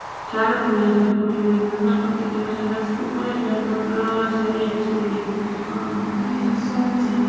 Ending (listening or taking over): taking over